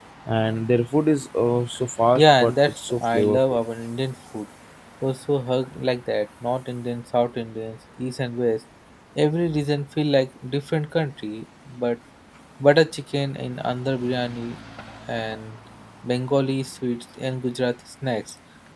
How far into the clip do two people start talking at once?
2.1 s

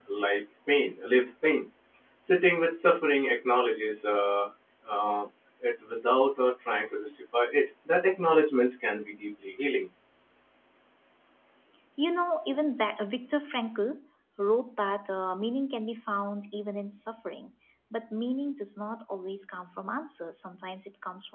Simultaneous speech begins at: none

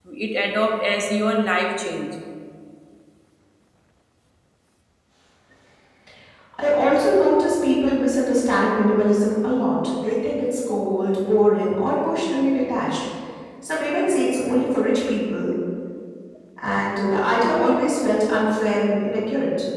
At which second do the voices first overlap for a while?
none

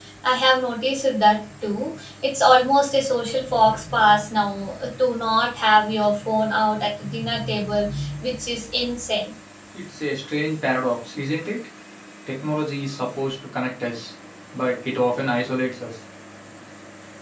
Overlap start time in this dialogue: none

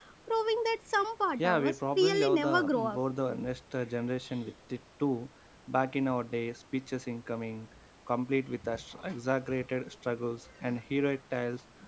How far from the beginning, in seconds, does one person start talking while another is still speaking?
1.4 s

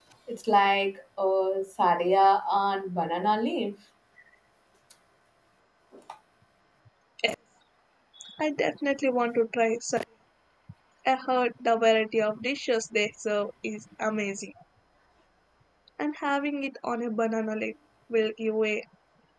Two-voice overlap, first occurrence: none

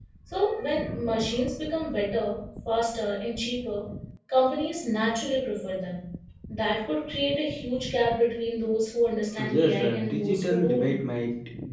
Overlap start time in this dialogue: 9.4 s

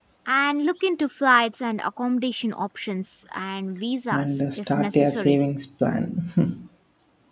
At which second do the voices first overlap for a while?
4.1 s

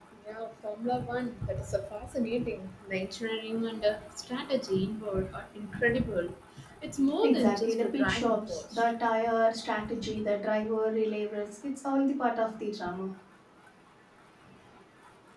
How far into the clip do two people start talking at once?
7.2 s

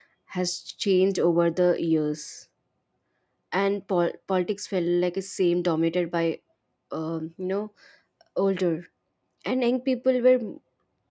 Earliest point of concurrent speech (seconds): none

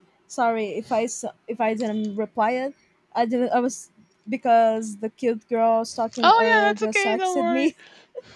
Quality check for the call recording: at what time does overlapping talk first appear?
6.1 s

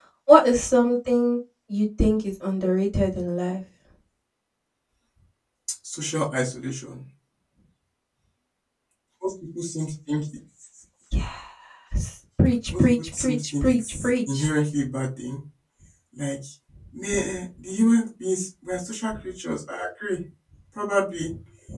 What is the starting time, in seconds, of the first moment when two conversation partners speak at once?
12.7 s

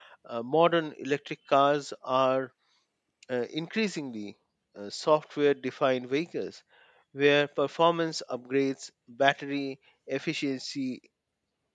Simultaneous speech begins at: none

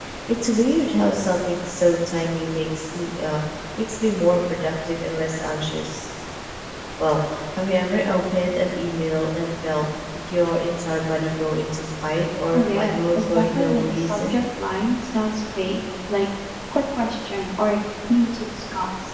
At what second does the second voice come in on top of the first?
12.5 s

